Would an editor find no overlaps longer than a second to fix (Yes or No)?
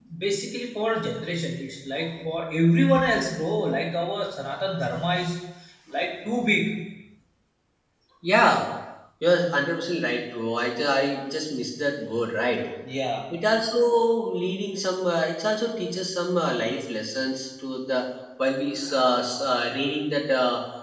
Yes